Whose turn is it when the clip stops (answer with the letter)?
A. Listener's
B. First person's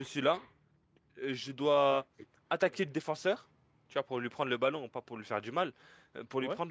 B